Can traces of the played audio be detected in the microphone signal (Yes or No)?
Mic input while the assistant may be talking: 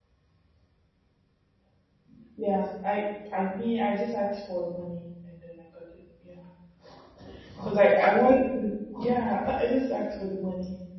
No